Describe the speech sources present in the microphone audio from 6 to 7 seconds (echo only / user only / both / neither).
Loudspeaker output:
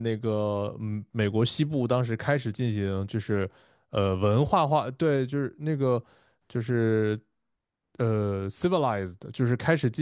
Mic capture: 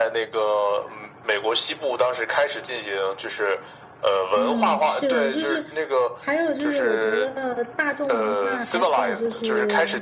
both